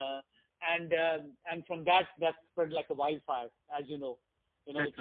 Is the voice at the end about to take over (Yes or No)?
No